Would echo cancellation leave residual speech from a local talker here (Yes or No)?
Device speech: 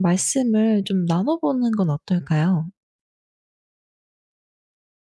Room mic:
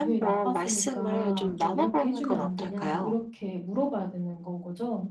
Yes